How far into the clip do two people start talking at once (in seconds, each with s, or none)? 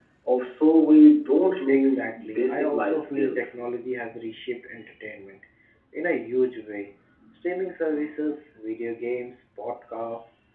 1.7 s